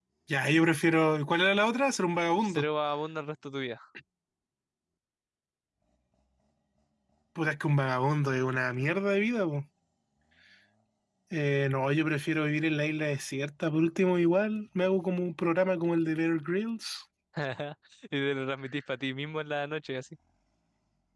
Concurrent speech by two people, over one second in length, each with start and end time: none

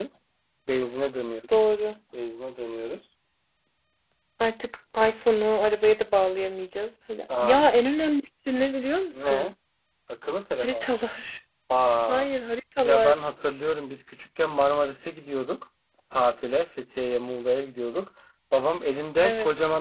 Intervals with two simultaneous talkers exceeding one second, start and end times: none

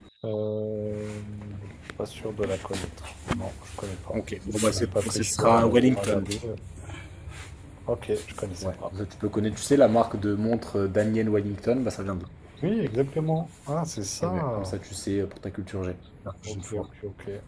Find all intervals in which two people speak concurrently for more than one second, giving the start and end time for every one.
4.7-6.3

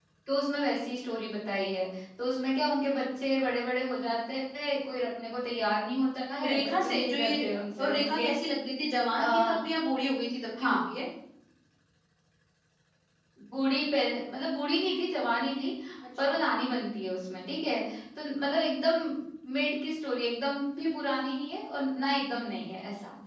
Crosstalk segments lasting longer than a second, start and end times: 6.4-8.3

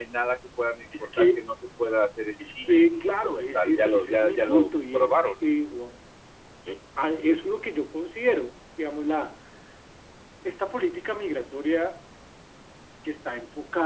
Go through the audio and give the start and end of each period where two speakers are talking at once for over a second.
2.5-5.4

